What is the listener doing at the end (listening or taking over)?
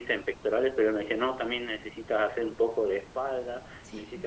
listening